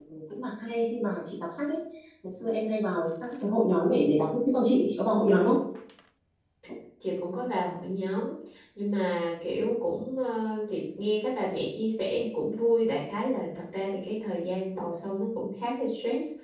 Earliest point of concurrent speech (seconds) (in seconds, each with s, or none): none